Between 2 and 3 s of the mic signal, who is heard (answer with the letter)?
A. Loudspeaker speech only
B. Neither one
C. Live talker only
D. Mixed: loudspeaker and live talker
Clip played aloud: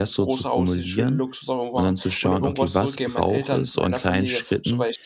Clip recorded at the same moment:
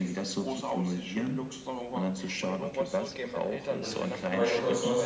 A